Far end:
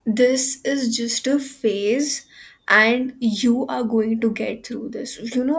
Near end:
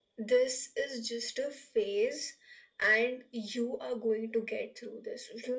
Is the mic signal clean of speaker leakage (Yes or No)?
No